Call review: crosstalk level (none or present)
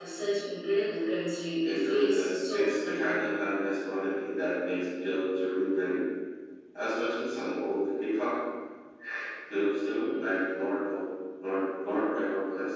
present